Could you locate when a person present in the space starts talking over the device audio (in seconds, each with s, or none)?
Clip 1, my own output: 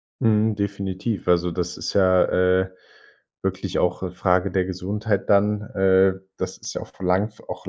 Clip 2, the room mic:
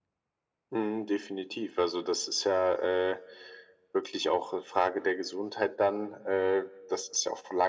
none